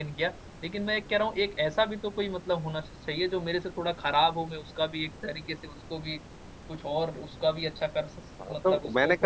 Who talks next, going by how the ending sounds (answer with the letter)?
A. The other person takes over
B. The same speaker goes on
A